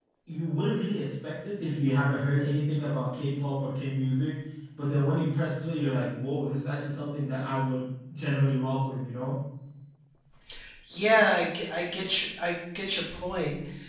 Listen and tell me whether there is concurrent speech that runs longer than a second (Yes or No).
No